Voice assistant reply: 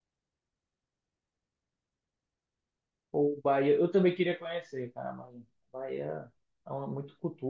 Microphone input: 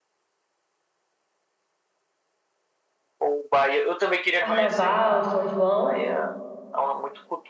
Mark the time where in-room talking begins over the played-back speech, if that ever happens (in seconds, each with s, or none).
4.4 s